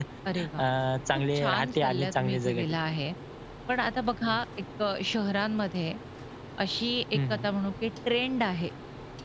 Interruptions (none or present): present